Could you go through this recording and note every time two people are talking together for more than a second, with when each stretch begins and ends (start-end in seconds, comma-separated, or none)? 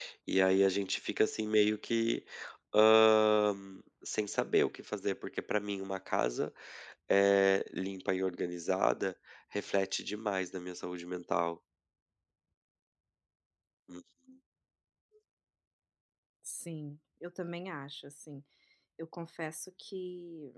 none